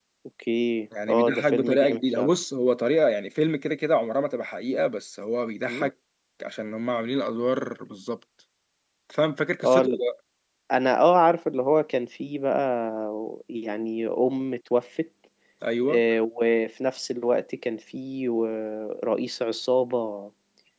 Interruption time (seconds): 1.1 s

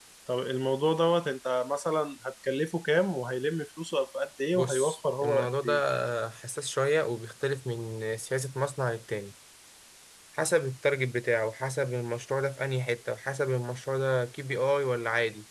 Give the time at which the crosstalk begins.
4.5 s

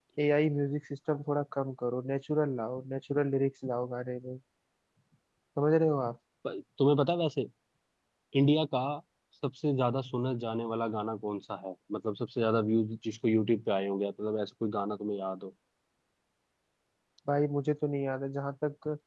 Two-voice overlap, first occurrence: none

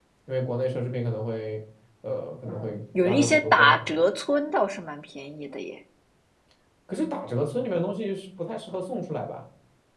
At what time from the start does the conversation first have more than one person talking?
2.5 s

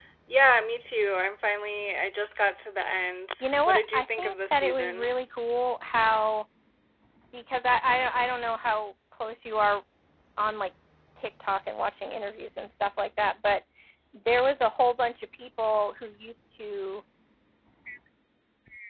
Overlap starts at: 3.4 s

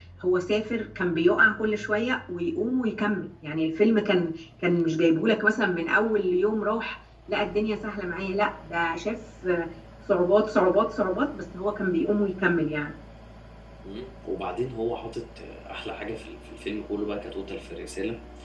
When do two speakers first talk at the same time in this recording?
none

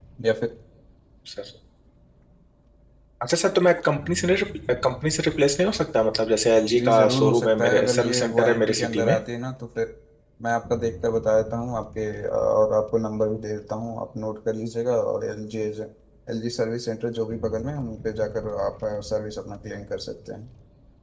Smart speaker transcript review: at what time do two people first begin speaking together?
6.7 s

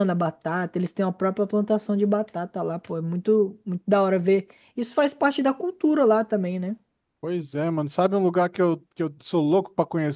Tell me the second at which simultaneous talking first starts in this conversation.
none

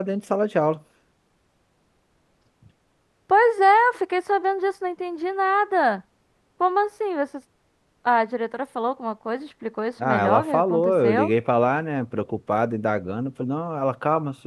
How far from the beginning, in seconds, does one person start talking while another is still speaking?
10.0 s

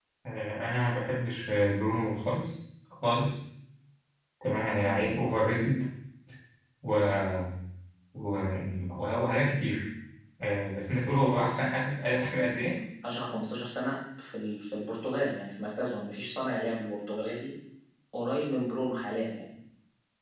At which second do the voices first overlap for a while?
none

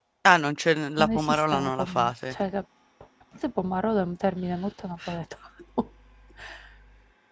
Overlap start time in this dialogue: 1.0 s

